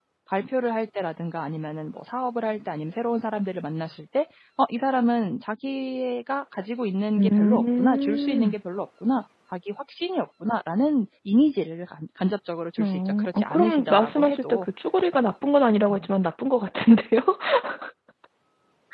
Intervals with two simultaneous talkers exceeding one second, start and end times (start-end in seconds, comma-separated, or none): 7.2-8.5, 12.8-14.7